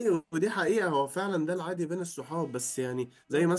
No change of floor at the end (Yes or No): Yes